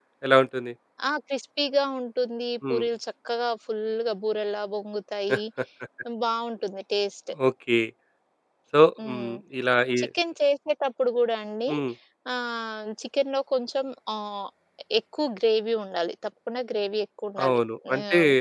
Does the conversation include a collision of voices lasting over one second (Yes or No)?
No